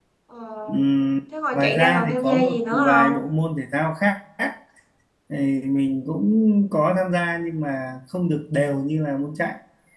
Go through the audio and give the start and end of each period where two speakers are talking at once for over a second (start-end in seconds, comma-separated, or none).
1.5-3.1